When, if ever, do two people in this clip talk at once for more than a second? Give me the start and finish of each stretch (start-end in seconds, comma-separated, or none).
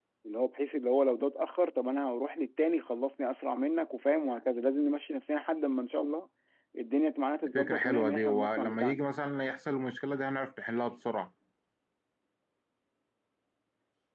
7.5-9.0